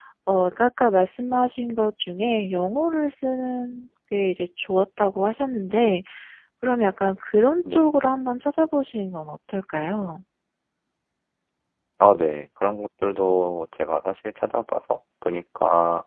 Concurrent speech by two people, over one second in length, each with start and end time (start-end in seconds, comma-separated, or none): none